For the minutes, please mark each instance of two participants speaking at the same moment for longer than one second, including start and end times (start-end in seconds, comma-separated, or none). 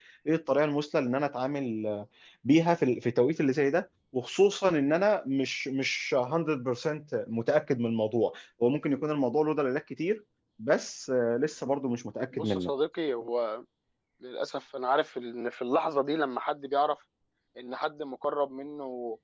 none